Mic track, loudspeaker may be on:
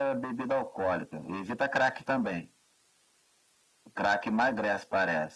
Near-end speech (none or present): none